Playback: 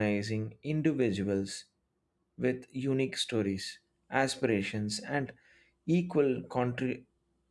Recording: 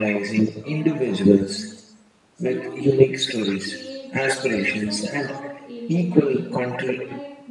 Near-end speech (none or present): present